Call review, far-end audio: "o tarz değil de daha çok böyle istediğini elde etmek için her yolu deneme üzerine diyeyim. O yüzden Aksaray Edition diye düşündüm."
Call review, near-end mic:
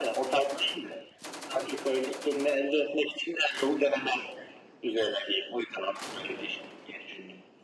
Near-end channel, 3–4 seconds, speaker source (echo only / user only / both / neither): echo only